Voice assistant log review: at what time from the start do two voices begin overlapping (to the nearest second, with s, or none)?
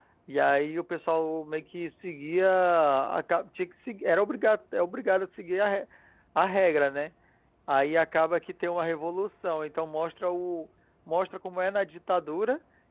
none